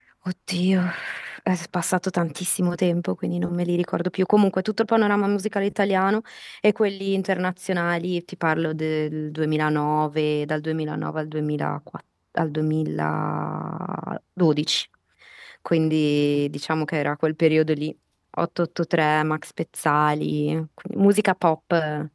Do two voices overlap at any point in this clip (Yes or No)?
No